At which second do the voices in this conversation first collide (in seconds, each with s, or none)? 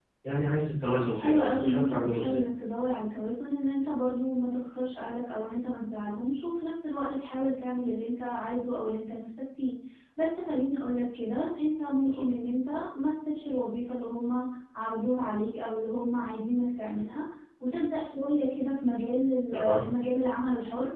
1.1 s